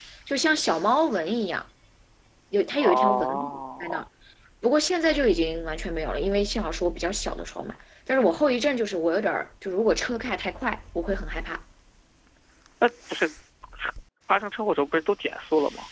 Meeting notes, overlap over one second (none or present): present